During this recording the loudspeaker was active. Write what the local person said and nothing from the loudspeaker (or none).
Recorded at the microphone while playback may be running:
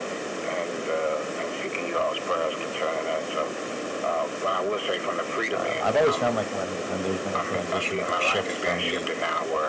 Um, I've always found like when when there's been a transition or a shift for me